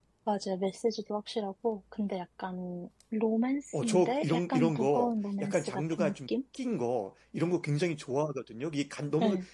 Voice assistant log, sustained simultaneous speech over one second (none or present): present